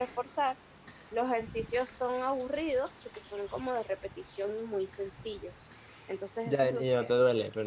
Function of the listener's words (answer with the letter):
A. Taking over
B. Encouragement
A